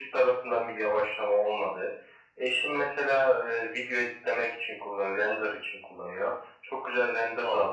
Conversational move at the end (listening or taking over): listening